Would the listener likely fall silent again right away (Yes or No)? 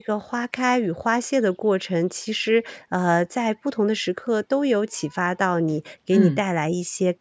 Yes